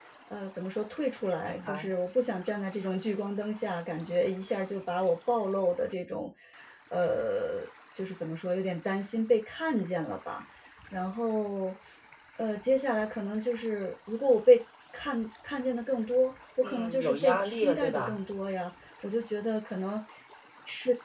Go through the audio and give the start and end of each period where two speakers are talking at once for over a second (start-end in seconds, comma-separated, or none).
16.6-18.2